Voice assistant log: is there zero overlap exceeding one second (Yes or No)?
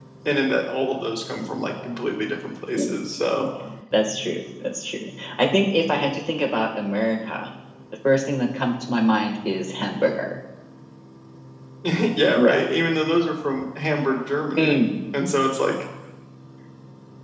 Yes